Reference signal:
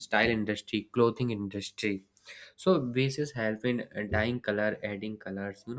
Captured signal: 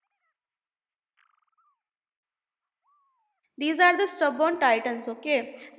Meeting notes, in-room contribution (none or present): present